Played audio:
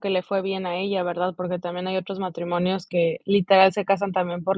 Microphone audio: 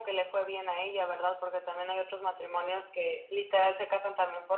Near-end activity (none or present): none